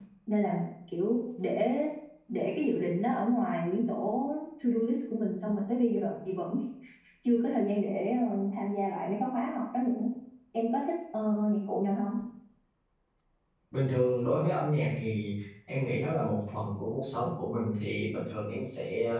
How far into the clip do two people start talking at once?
none

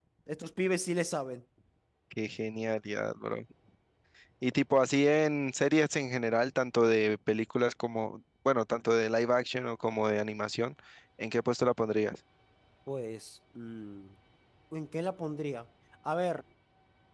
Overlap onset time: none

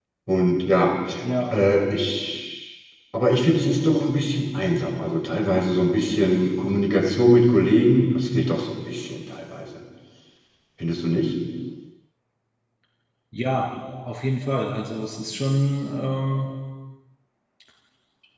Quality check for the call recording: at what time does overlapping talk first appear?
none

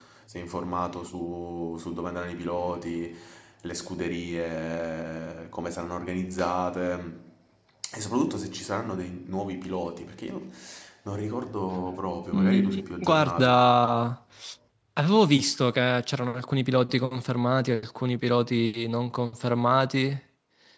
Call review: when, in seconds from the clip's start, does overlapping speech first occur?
12.3 s

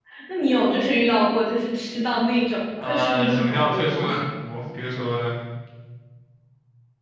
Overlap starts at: 2.8 s

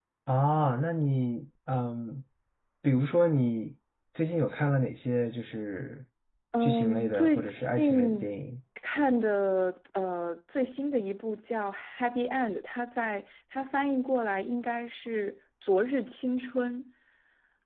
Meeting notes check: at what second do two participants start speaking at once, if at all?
6.6 s

